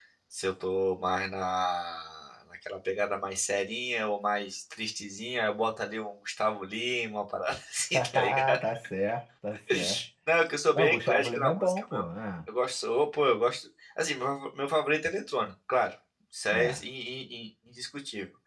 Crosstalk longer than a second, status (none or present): present